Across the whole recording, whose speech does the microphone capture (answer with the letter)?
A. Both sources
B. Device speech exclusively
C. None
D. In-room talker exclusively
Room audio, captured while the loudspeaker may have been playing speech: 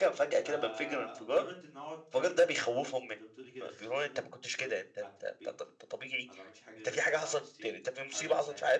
A